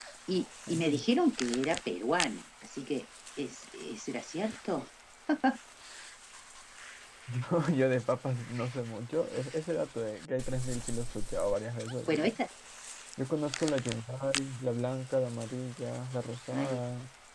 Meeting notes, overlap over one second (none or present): none